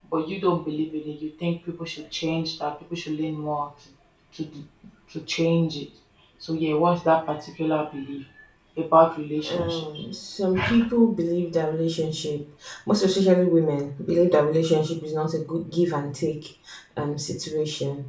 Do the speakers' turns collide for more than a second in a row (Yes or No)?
No